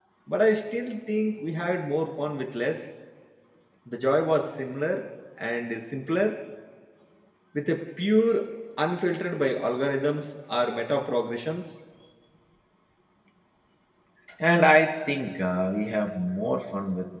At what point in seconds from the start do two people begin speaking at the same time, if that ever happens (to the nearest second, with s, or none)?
none